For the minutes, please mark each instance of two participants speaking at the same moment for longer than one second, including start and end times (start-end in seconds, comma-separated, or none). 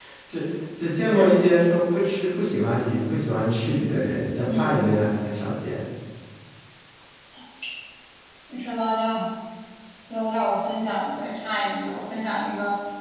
none